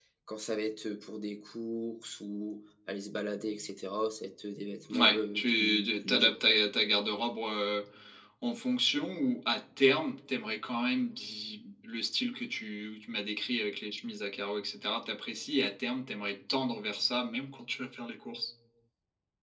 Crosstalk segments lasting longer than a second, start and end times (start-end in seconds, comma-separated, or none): 4.9-6.3